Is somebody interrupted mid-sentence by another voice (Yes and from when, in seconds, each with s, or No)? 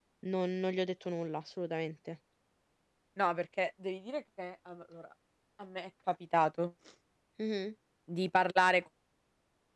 No